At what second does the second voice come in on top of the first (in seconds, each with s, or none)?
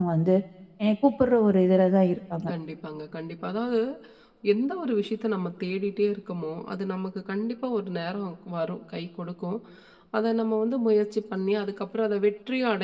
none